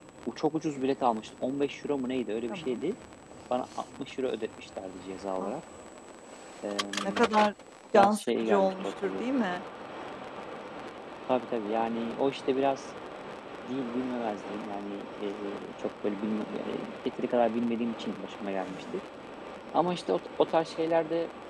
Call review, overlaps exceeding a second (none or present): present